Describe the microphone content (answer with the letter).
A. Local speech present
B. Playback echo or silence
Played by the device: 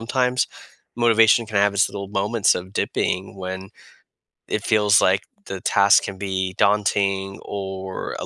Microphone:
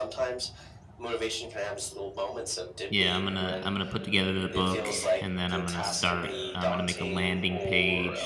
A